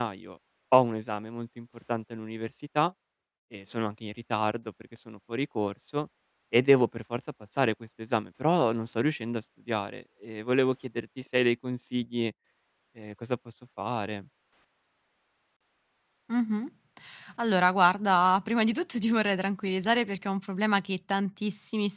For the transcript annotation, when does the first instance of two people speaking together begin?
none

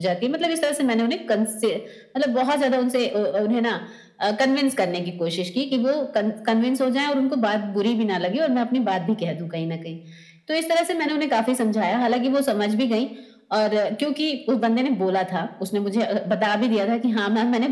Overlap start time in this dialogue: none

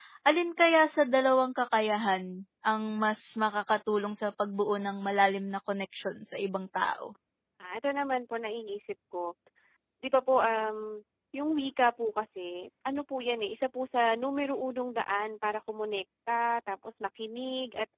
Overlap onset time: none

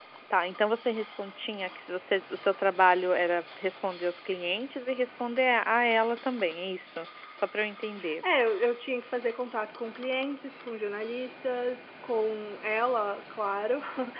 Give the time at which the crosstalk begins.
none

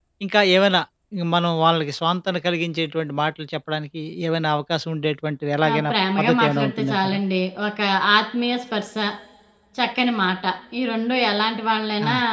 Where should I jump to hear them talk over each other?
5.6 s

